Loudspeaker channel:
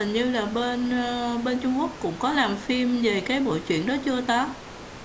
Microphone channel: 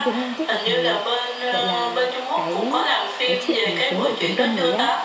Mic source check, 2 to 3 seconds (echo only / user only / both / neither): both